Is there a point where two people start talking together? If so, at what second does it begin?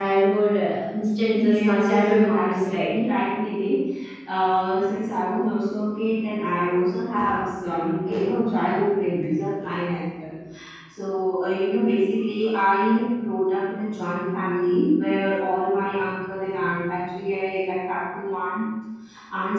1.3 s

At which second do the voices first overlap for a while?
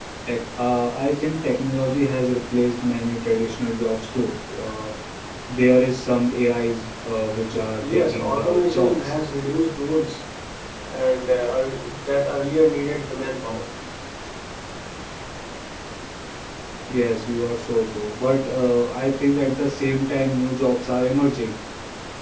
7.8 s

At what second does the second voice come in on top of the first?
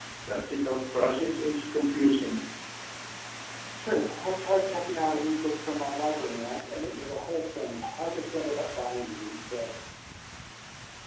none

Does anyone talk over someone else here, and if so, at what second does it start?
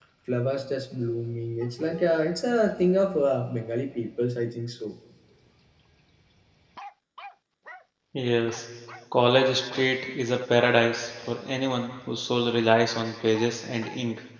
none

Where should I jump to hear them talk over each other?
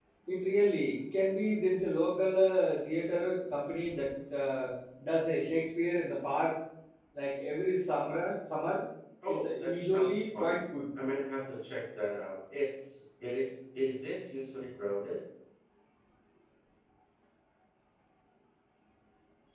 9.3 s

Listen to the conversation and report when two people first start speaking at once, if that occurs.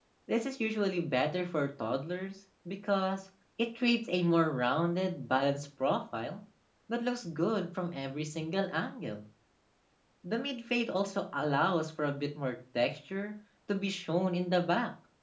none

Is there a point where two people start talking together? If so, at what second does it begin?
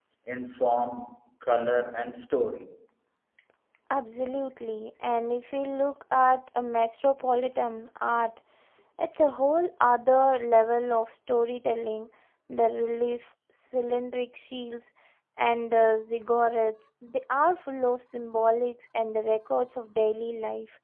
none

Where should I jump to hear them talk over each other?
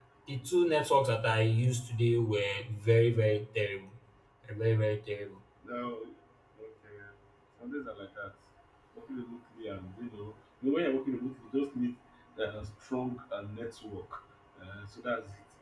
none

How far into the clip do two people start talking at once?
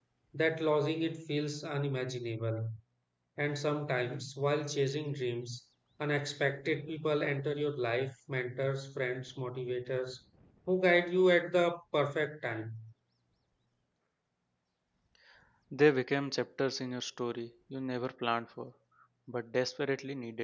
none

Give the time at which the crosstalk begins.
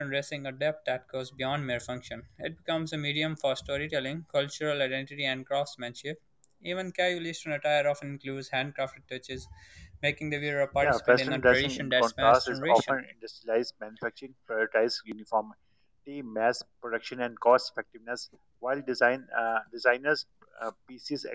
10.8 s

